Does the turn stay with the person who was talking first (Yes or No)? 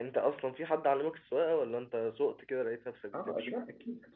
No